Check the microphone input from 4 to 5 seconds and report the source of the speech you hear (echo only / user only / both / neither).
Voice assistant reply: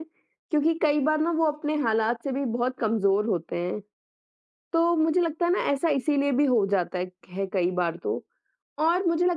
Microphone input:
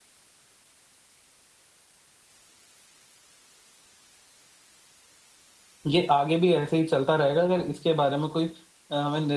neither